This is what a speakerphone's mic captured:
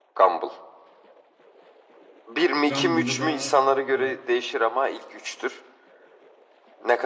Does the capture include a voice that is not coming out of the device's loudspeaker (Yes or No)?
Yes